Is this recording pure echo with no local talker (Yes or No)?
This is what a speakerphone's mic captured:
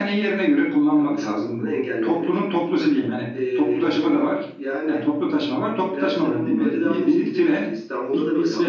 Yes